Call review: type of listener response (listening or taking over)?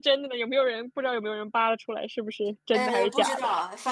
taking over